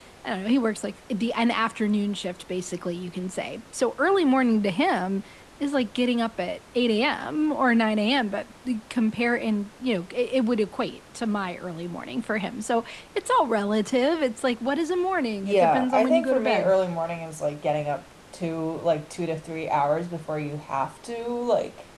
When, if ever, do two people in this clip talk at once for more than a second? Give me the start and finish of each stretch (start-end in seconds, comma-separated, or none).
15.4-16.7